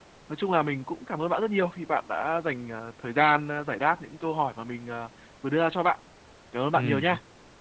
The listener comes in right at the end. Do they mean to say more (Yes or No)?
Yes